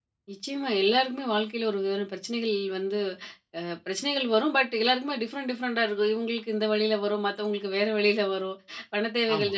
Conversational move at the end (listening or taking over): listening